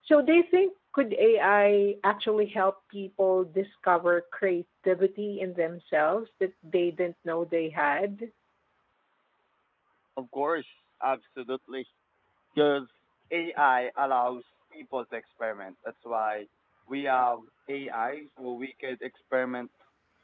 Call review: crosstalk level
none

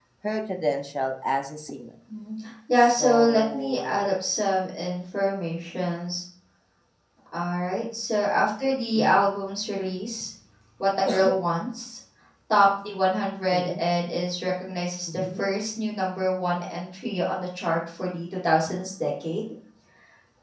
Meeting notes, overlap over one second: present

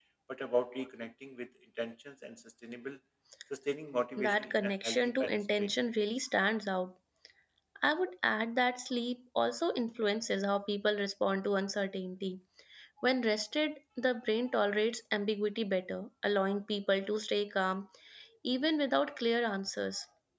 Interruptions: present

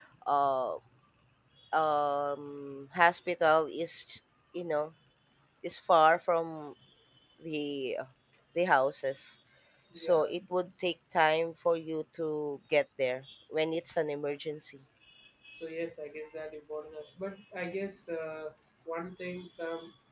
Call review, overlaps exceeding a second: none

